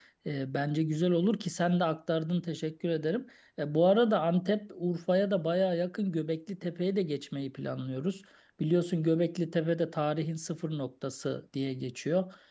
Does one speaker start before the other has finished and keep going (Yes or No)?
No